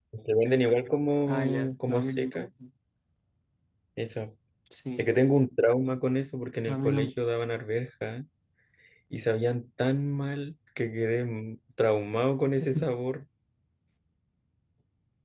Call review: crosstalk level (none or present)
present